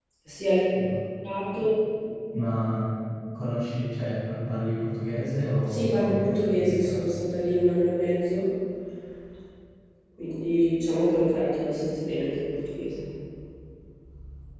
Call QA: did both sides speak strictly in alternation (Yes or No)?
No